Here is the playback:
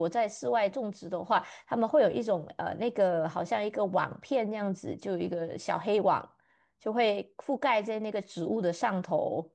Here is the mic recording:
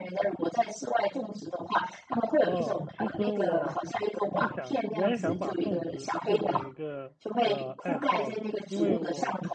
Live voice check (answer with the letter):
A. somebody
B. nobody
A